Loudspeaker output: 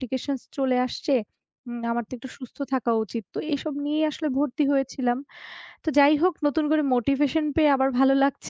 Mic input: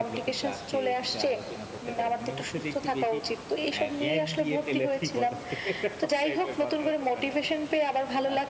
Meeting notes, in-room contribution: present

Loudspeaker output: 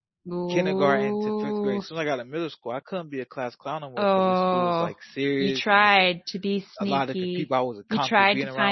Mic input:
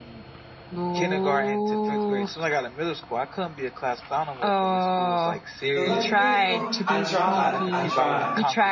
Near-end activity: present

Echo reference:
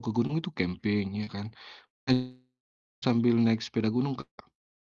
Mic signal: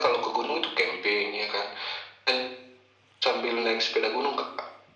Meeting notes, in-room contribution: none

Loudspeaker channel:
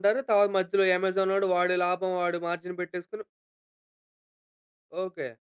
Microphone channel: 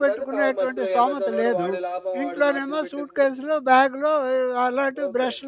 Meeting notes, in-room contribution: present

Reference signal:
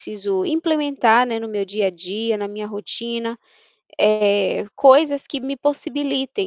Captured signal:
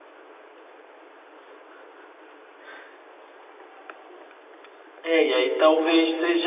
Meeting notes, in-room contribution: present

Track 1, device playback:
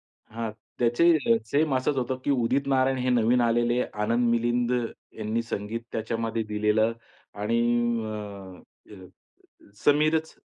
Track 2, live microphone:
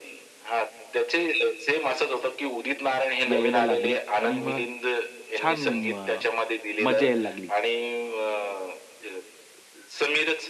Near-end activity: present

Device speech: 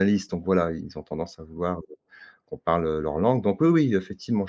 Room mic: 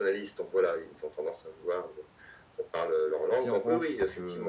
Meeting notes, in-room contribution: present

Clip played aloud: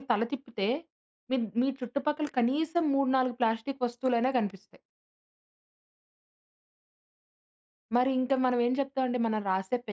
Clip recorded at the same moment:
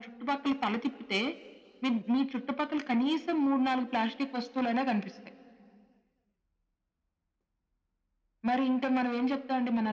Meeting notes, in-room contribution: none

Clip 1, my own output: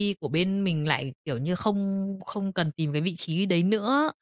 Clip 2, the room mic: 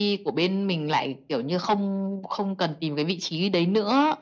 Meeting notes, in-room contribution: none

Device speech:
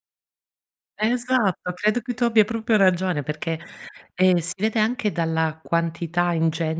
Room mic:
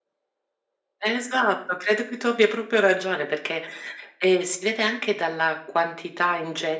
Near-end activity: none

